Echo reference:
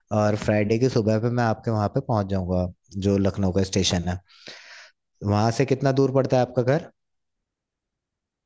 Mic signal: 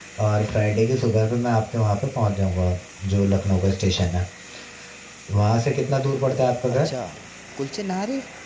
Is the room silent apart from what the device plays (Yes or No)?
No